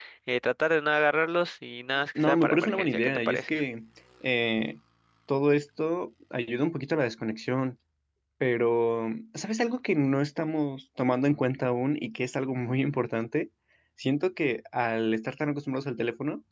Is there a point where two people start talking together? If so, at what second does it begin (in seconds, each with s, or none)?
2.1 s